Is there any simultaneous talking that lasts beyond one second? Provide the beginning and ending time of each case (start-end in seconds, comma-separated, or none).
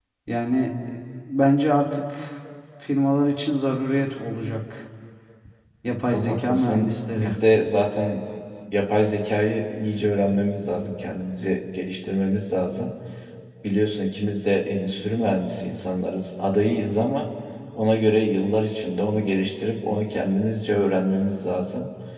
6.1-7.3